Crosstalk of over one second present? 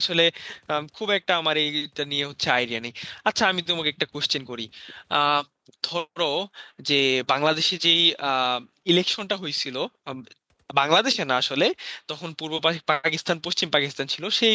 No

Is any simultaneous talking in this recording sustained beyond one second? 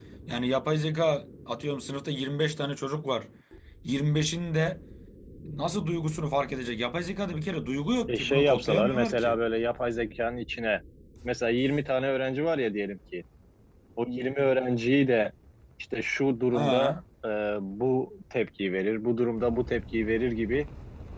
Yes, from 8.1 s

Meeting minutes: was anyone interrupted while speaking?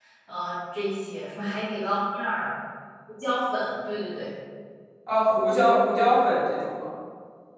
No

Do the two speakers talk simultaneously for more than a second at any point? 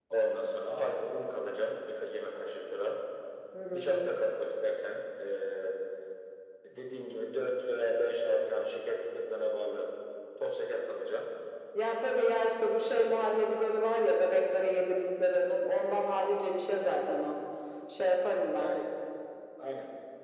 No

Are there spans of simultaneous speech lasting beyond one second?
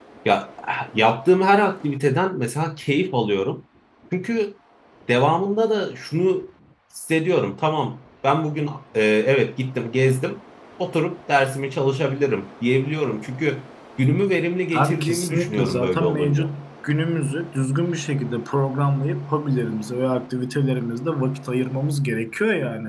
Yes, from 14.7 s

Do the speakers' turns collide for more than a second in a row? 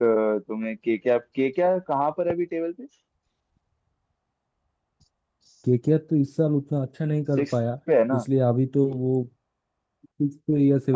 No

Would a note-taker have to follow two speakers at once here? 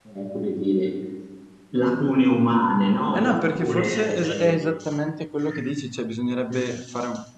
Yes, from 3.1 s

